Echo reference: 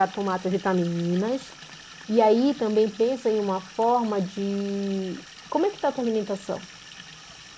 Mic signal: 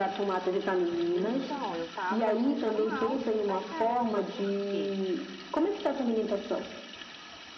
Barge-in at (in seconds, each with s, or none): 1.1 s